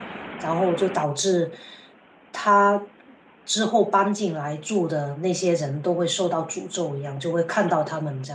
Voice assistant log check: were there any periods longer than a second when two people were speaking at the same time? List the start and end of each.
none

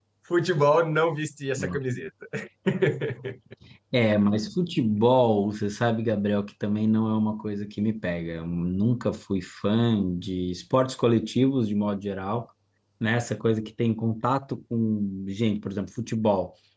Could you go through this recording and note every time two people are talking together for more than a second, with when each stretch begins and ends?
none

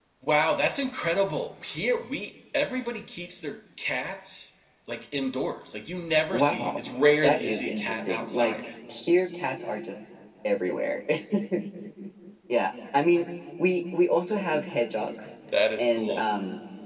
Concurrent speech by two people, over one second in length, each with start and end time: 7.2-8.5

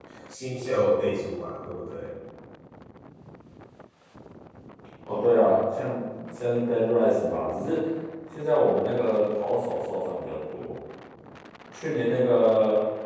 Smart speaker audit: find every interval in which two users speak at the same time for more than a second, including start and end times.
none

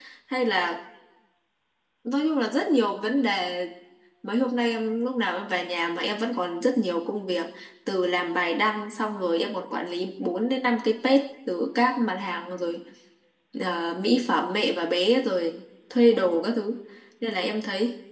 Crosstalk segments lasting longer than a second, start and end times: none

